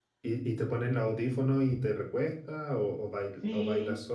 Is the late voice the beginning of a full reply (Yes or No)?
Yes